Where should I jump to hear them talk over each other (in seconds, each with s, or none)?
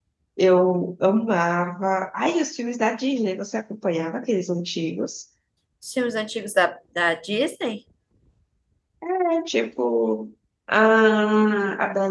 none